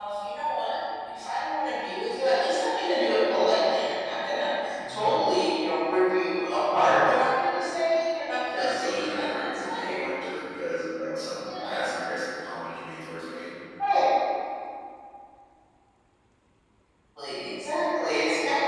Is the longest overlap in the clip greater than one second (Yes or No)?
Yes